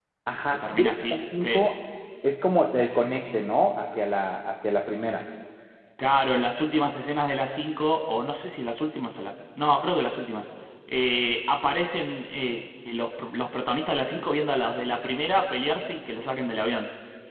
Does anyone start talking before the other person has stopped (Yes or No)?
Yes